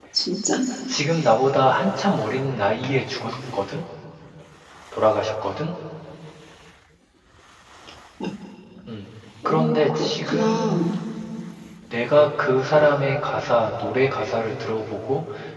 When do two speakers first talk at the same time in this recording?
9.4 s

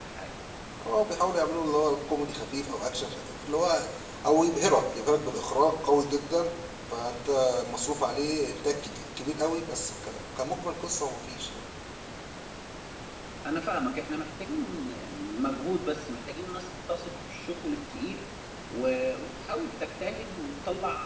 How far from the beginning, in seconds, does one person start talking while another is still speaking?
none

